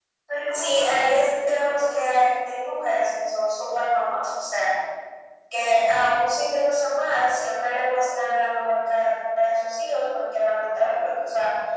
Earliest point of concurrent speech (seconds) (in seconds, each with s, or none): 0.5 s